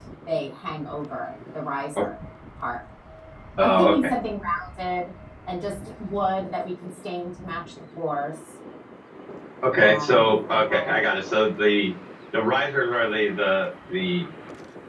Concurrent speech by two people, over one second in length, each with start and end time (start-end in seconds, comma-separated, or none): 9.8-11.0